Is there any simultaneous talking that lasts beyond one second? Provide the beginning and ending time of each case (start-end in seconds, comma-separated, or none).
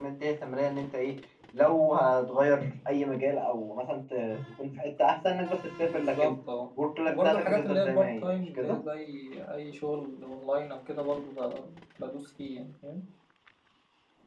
7.1-8.8